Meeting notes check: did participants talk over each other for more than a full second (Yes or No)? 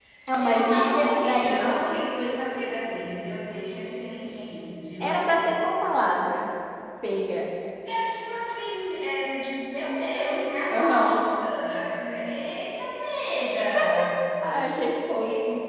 Yes